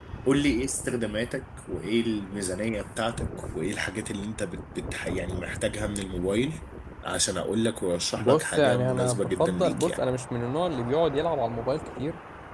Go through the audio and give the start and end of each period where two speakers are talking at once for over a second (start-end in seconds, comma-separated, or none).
8.2-10.0